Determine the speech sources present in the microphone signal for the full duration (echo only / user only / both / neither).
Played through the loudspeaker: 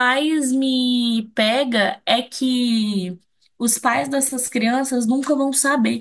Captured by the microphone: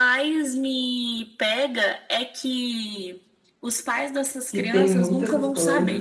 both